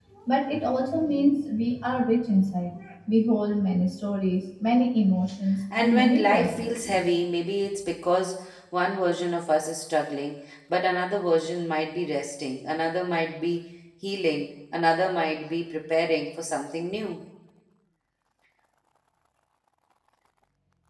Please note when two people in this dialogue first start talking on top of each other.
5.7 s

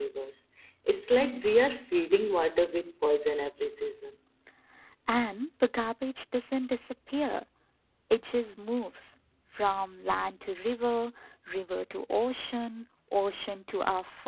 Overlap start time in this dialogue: none

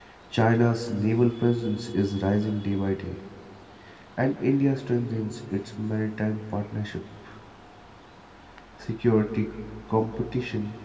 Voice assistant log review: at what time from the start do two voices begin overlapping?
none

